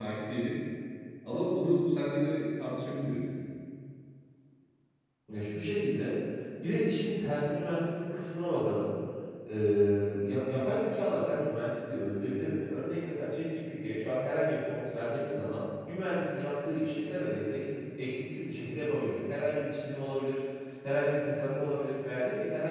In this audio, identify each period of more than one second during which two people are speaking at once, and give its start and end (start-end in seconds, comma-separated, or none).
none